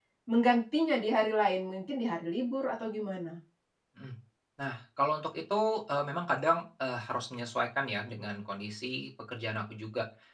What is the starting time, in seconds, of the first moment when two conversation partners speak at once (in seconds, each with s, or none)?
none